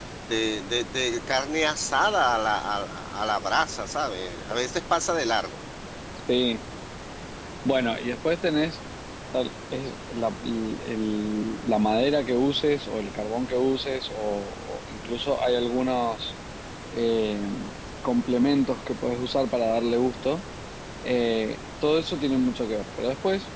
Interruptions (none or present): none